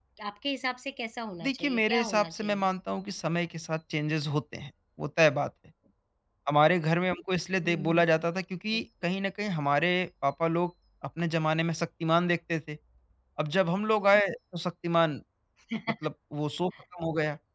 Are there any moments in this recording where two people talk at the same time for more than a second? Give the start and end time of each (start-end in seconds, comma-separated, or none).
1.4-2.7